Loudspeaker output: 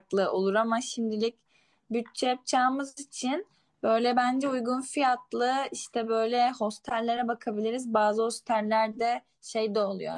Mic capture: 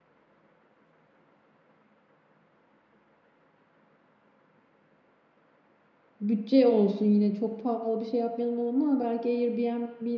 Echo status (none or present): none